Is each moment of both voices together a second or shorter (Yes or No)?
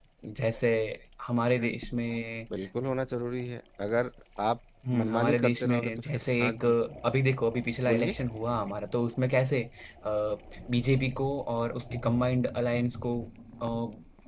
No